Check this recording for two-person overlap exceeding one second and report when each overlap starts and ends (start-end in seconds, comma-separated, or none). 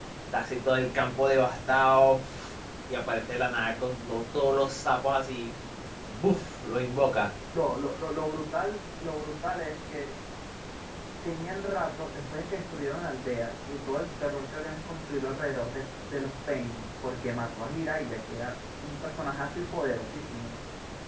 none